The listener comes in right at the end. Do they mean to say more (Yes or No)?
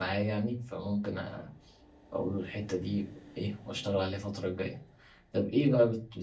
No